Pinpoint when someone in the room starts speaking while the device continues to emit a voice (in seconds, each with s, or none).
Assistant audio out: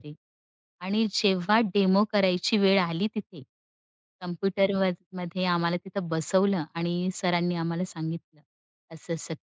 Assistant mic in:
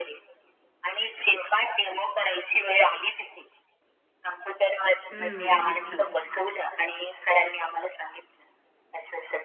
5.1 s